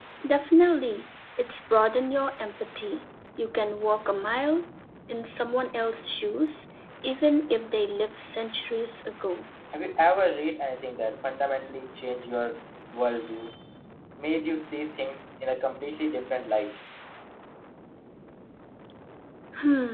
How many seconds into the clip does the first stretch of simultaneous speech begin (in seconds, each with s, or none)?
none